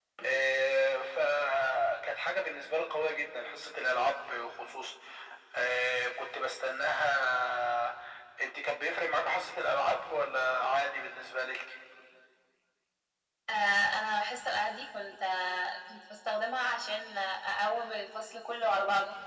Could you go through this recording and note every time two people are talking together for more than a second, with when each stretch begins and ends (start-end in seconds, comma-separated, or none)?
none